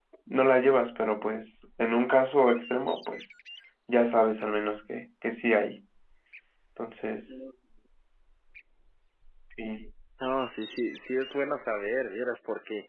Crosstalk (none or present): none